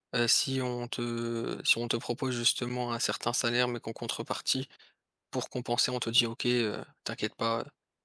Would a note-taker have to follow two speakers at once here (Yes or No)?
No